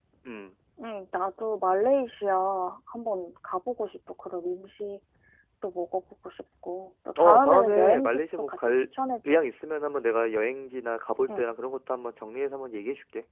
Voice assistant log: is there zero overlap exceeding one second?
No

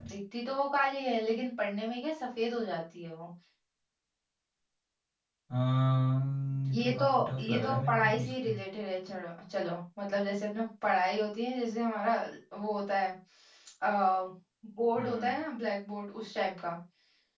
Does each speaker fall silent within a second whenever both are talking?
No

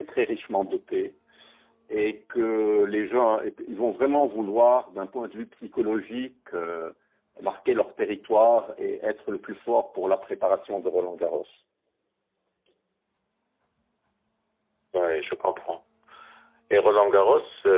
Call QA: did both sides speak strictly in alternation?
Yes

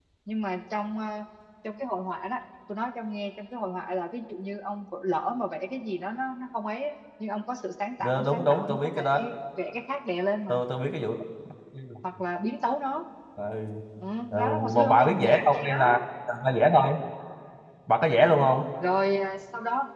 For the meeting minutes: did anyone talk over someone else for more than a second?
Yes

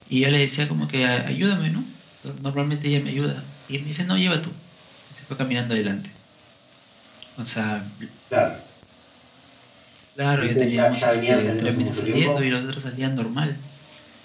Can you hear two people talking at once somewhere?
Yes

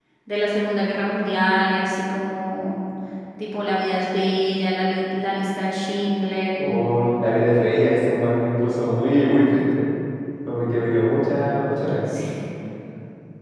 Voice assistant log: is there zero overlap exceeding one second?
Yes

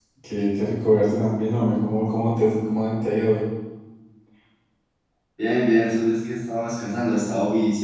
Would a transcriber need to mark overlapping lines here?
No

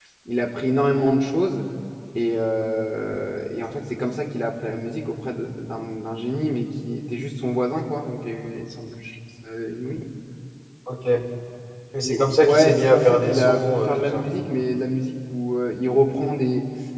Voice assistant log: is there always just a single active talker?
No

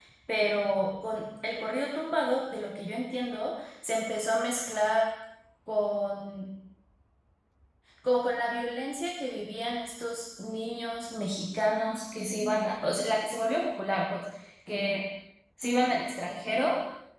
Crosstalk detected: No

